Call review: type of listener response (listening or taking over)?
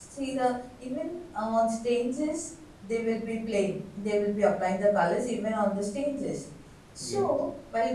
listening